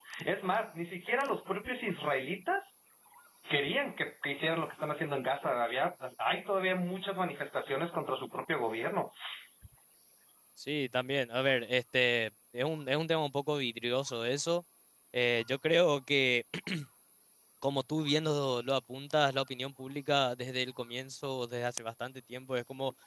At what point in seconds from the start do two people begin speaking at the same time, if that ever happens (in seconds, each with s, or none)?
none